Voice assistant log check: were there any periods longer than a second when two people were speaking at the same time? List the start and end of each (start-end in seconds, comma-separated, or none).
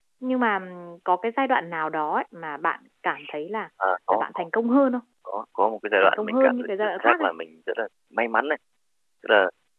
6.0-7.3